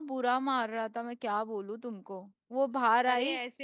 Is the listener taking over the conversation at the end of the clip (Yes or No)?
Yes